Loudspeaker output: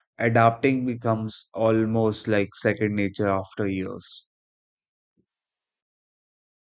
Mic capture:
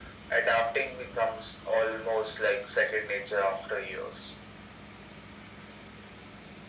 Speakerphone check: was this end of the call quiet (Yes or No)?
Yes